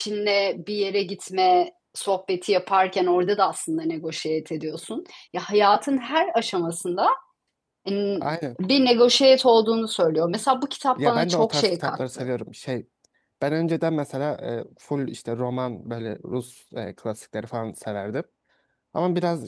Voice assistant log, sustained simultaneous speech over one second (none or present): present